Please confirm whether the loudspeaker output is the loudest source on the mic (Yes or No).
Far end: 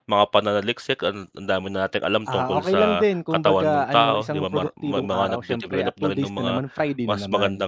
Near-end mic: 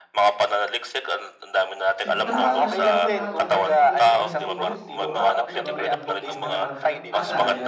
Yes